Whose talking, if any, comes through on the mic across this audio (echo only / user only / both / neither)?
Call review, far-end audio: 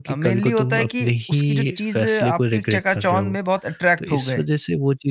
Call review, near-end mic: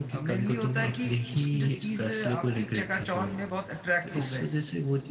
echo only